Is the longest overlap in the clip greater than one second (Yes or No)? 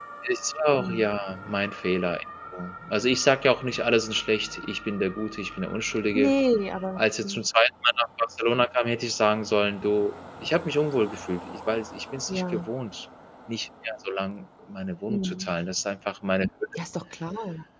No